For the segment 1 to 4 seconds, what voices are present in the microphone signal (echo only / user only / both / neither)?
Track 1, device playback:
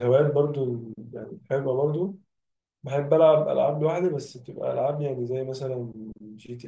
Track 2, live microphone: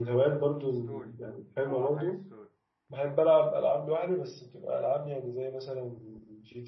both